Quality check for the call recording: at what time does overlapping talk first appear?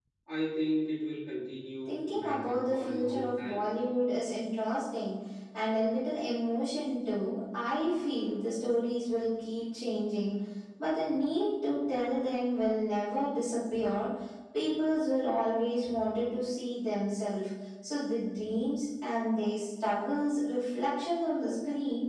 2 s

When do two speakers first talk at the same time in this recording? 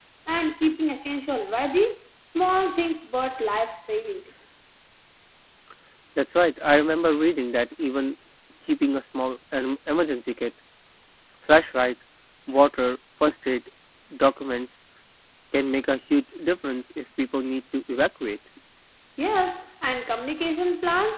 none

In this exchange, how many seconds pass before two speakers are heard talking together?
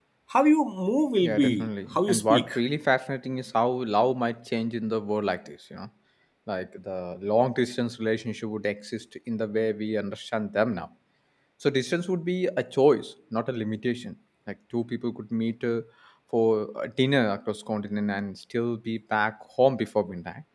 1 s

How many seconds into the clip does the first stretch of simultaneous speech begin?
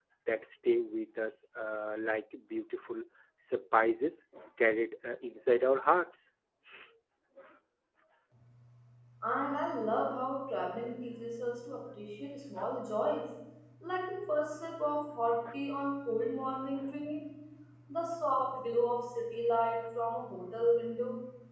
none

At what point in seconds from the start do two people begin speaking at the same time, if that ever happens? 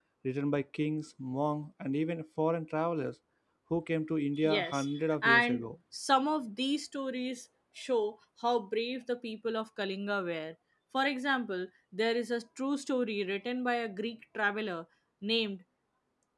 4 s

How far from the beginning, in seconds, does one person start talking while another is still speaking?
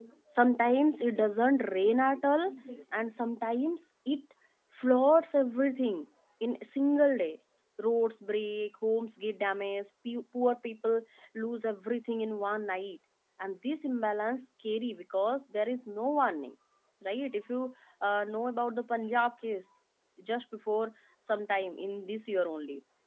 none

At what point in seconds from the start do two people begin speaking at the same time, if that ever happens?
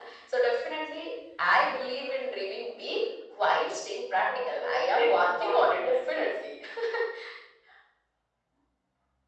4 s

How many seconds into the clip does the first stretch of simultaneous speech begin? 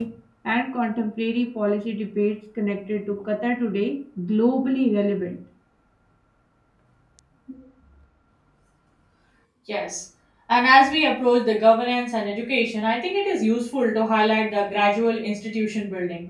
none

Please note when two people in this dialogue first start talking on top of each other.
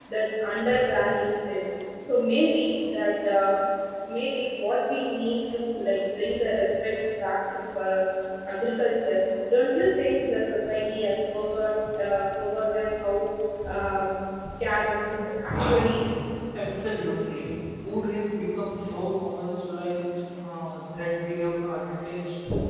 none

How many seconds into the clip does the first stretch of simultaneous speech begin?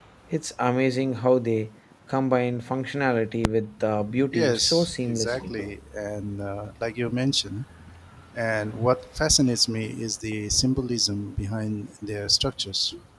4 s

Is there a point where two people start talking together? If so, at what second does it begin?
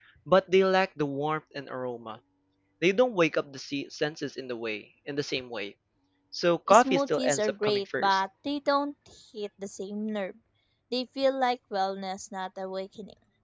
7 s

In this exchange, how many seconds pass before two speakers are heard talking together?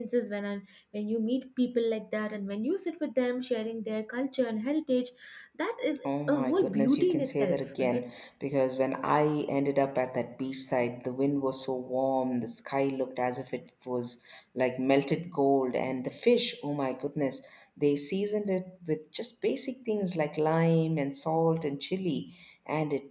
6 s

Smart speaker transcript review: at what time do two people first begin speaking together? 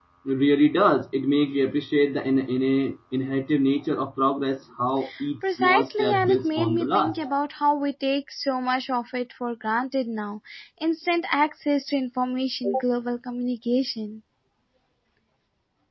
6 s

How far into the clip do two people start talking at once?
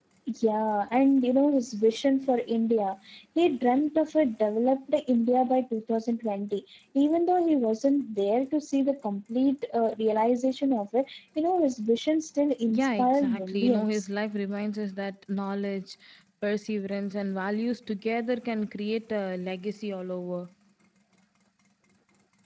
13 s

